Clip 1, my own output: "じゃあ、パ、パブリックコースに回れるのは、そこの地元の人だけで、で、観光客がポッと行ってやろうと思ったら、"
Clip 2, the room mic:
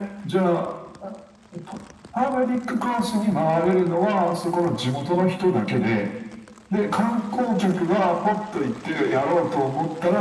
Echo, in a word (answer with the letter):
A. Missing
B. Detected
B